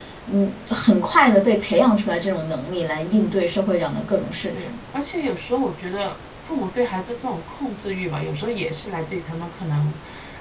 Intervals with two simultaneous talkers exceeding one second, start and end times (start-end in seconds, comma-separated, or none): none